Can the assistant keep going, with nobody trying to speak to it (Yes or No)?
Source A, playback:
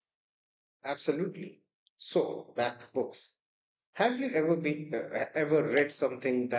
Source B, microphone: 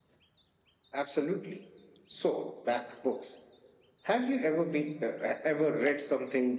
Yes